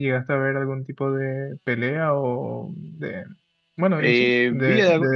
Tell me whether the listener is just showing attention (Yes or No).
No